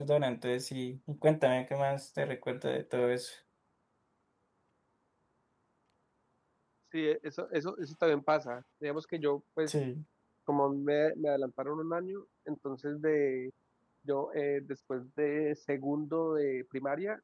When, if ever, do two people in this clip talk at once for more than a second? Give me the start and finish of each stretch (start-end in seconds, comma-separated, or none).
none